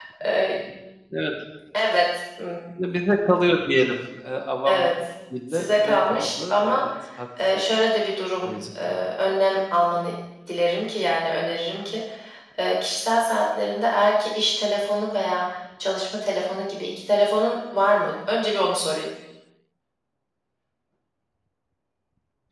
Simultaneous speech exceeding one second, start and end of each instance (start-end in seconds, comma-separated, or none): 5.5-6.8